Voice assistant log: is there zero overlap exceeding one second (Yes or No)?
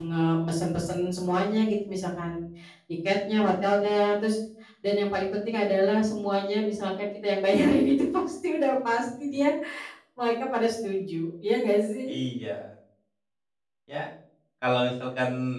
Yes